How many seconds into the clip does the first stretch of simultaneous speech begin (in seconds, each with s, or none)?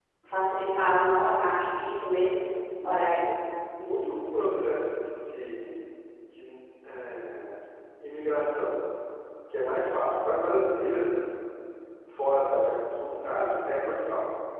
none